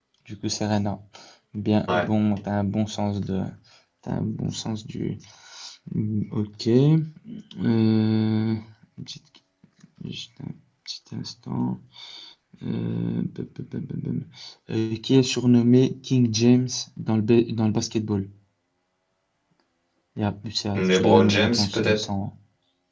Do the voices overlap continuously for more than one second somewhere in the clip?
Yes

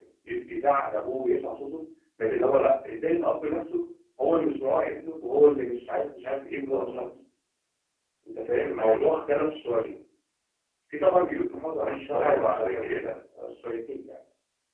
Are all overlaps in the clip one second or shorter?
No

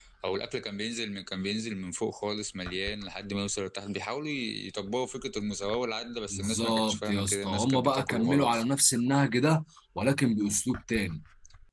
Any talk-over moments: Yes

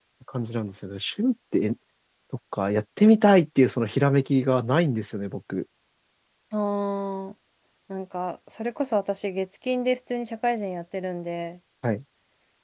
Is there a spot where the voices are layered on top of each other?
No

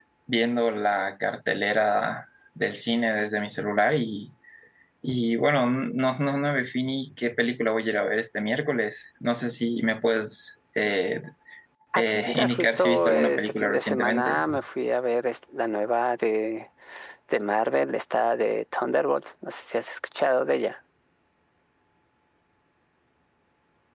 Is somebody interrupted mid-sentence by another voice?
Yes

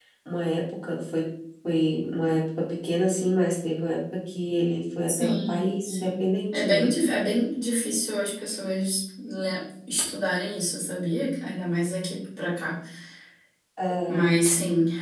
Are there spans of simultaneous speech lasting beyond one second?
Yes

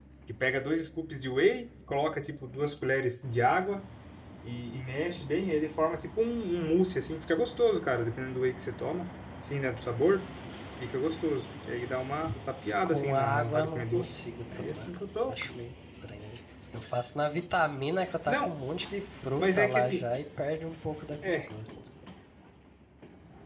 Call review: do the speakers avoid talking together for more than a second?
No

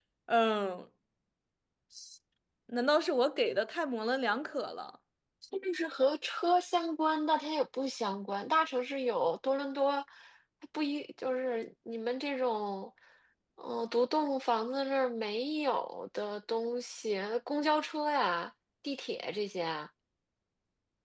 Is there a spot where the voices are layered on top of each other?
No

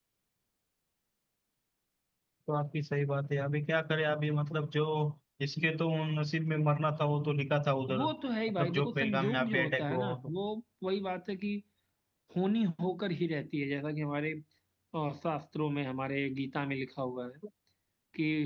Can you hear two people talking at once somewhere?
Yes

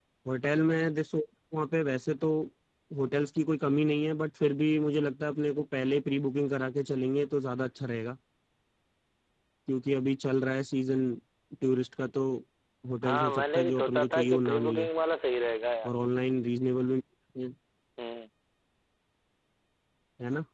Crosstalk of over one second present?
Yes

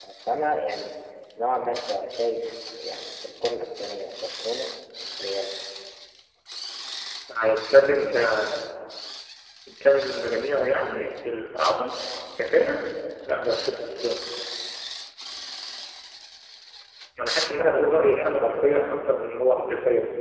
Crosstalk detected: Yes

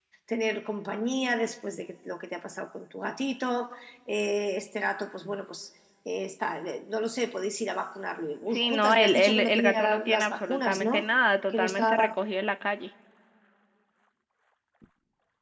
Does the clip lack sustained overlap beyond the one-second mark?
No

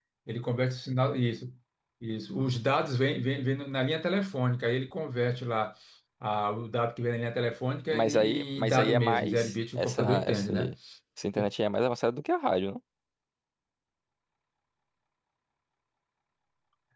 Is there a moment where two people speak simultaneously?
Yes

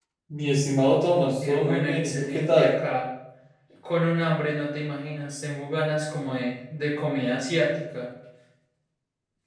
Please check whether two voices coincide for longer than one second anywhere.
Yes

